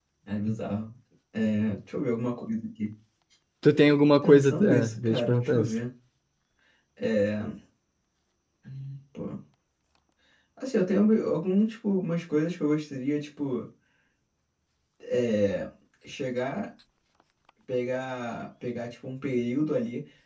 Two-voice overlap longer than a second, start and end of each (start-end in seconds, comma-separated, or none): 4.2-5.7